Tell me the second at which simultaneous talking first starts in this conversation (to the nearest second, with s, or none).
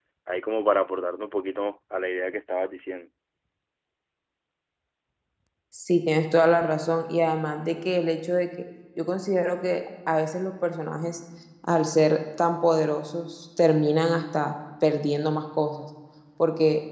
none